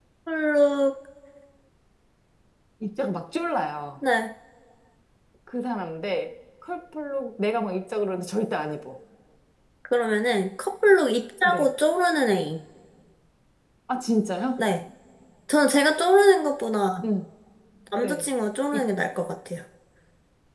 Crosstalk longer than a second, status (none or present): none